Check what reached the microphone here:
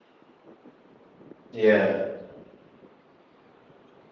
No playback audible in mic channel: Yes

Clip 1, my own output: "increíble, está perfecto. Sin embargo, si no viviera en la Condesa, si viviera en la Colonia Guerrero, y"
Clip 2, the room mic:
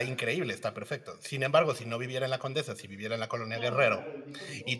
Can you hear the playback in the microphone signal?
Yes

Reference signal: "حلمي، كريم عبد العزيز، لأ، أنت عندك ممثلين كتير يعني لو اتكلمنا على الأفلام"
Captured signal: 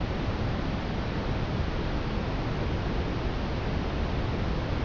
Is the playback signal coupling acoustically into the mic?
No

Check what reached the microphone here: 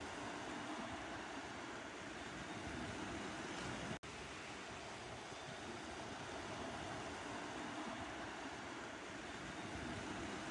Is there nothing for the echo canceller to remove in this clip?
Yes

